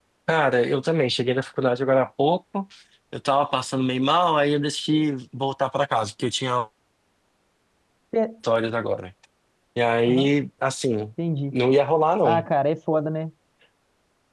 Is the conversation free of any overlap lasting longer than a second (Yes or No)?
Yes